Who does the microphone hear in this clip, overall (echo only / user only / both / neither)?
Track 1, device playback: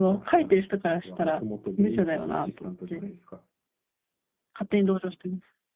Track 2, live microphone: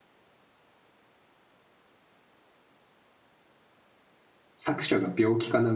user only